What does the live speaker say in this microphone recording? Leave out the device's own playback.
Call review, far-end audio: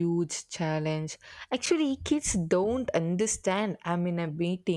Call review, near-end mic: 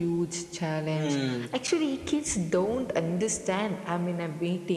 Hmm.

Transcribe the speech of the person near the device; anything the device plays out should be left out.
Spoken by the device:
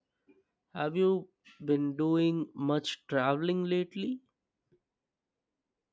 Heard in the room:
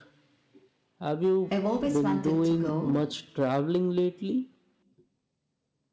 I've always wanted to go.

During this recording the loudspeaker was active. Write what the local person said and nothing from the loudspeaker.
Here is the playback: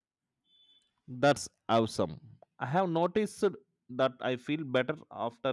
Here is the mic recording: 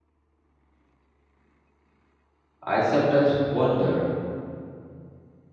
I sometimes wonder

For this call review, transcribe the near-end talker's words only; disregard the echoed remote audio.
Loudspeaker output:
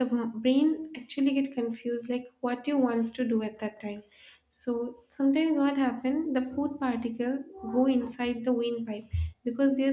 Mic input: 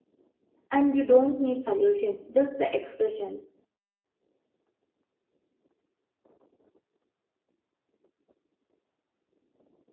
and you don't need solutions, just the expressions.

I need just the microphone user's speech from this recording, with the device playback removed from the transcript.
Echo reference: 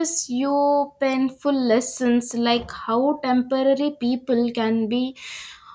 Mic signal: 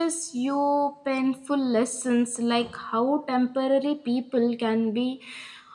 none

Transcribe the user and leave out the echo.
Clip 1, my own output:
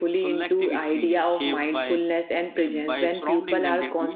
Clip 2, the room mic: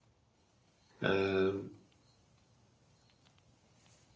uh,

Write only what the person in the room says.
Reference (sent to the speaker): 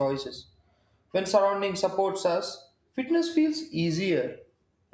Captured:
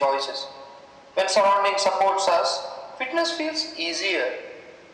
none

